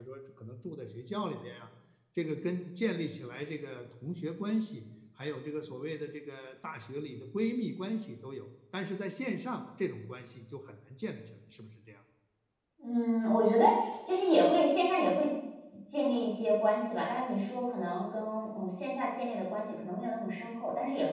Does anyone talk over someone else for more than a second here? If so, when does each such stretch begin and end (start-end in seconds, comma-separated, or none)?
none